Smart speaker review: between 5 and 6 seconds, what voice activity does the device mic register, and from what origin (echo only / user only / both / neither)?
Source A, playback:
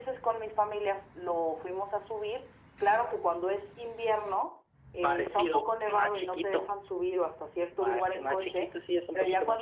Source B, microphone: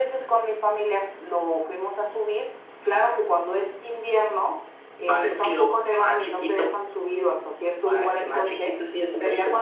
echo only